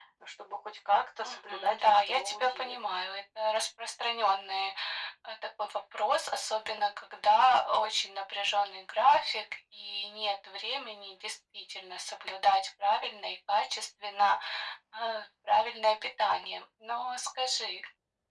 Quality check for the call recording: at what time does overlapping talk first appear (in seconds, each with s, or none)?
1.2 s